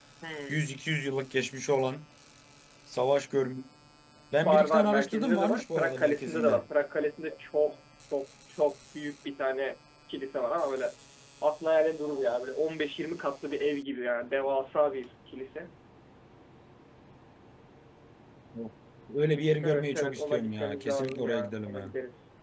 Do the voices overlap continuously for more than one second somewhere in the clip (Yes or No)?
Yes